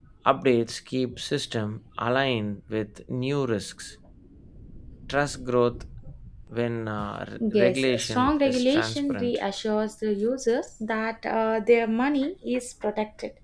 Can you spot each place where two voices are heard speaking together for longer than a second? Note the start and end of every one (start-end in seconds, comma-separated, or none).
7.5-9.4